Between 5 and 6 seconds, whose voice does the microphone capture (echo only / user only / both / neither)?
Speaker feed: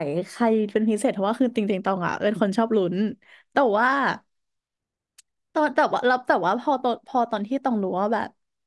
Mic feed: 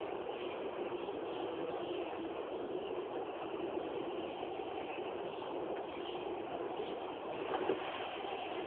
neither